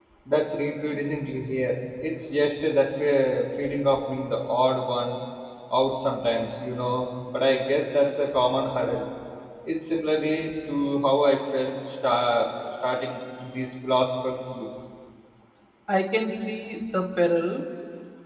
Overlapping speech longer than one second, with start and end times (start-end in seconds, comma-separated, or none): none